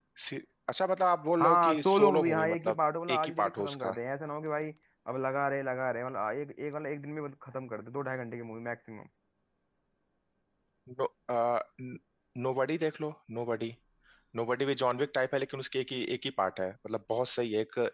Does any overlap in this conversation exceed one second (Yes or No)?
Yes